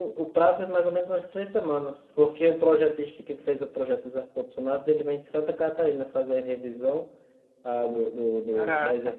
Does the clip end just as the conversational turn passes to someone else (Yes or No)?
No